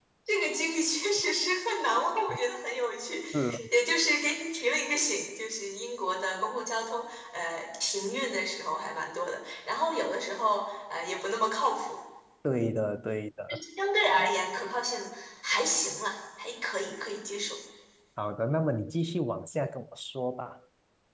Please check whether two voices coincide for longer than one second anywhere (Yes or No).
No